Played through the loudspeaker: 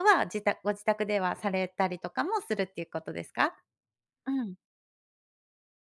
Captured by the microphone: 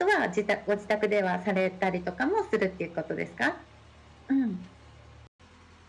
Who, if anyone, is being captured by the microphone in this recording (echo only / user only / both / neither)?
echo only